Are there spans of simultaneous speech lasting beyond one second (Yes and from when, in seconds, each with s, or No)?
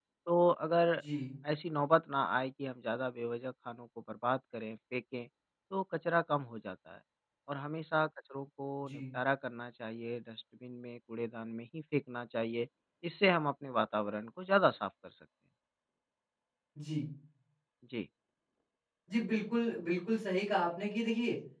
No